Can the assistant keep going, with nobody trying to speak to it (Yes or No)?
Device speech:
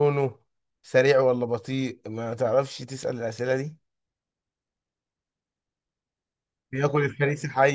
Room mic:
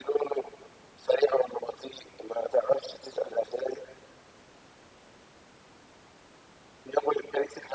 Yes